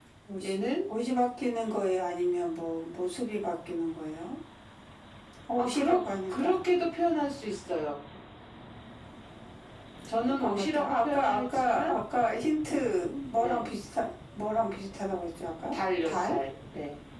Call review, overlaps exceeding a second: present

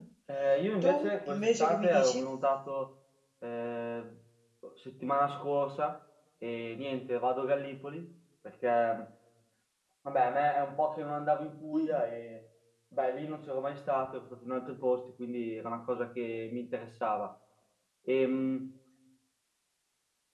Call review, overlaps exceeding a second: present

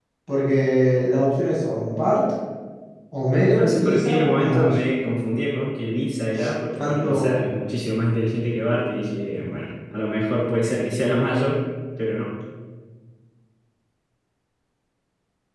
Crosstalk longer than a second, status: present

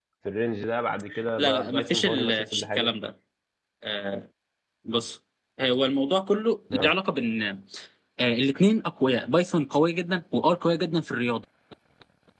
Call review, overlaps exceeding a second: present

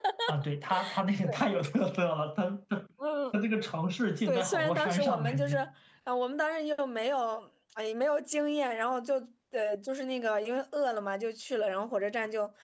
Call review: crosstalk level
present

